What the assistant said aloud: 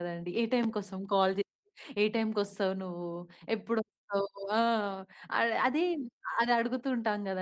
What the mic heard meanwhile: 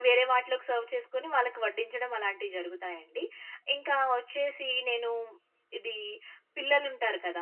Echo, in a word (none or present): none